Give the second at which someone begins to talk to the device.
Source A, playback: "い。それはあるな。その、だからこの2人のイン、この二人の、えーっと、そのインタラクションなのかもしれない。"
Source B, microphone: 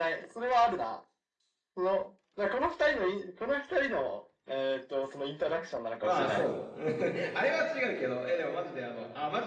6.0 s

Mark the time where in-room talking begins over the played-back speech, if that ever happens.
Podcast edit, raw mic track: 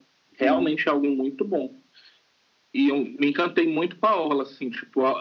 0.4 s

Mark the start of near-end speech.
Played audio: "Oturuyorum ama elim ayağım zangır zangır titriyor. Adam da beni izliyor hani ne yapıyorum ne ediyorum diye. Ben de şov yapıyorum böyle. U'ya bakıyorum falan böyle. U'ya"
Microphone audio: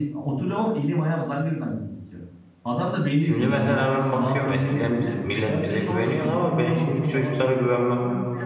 3.2 s

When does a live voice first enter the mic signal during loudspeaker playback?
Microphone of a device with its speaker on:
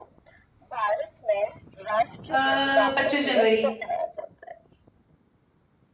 2.3 s

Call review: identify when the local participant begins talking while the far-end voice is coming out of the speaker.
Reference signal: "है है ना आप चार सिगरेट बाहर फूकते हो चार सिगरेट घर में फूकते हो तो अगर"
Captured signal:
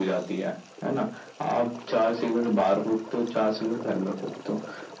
none

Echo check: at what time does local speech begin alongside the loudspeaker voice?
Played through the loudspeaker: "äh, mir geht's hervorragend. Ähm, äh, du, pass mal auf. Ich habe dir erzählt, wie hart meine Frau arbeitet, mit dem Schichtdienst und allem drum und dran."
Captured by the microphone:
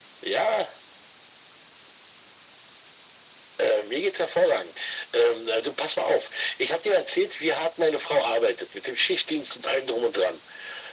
none

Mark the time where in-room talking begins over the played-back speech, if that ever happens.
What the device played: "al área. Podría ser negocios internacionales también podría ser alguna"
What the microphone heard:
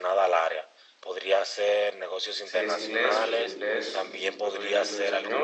2.4 s

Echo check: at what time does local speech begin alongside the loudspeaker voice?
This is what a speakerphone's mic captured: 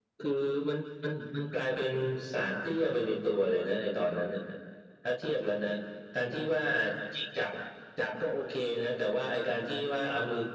none

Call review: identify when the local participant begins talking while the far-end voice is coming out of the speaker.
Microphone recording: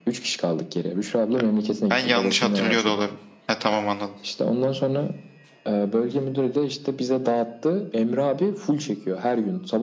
1.3 s

